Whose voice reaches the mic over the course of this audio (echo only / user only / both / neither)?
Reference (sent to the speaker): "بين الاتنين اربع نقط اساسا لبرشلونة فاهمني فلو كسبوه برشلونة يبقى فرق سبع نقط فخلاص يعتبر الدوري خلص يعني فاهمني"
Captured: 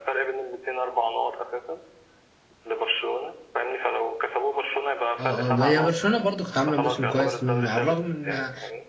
both